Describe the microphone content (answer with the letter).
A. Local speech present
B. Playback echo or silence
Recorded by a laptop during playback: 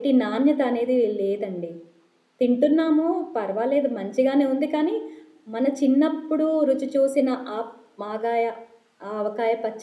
A